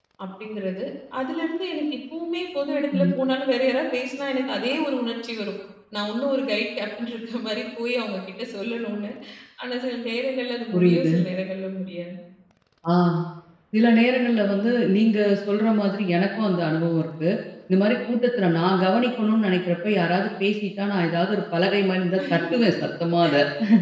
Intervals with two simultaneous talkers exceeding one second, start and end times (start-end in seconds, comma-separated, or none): none